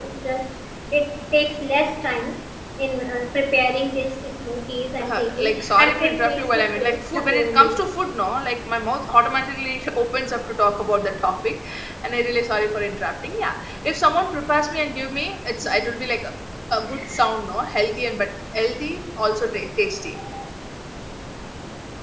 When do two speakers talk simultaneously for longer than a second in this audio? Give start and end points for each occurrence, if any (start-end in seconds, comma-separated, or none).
5.0-7.8